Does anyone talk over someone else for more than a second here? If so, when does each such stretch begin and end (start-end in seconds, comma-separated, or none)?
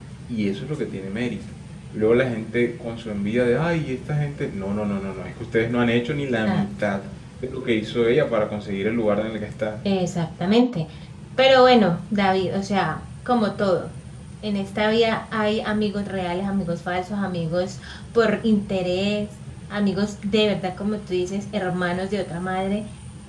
none